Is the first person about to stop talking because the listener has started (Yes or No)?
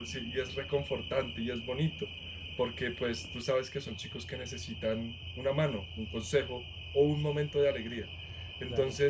No